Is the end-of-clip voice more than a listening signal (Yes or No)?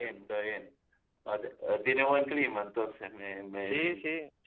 Yes